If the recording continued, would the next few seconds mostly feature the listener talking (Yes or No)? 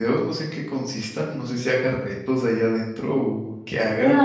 Yes